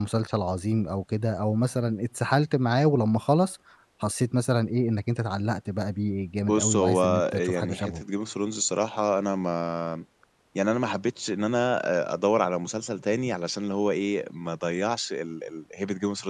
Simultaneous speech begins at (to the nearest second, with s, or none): 6 s